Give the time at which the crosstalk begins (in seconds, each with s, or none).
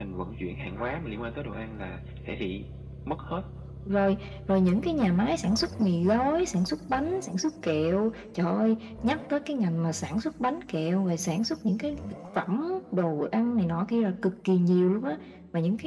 none